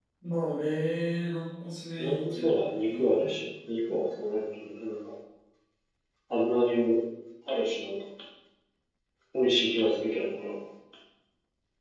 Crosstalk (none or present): present